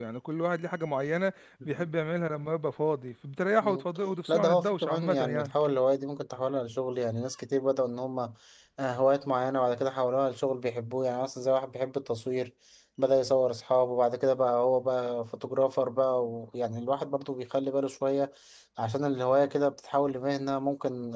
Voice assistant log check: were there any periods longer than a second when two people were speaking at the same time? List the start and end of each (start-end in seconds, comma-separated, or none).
4.3-5.5